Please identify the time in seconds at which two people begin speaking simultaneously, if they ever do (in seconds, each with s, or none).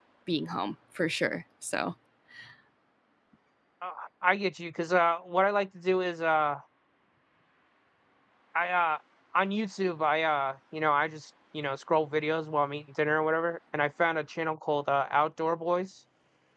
none